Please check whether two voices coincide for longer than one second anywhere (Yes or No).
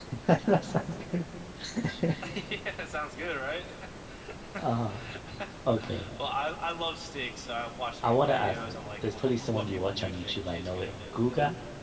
Yes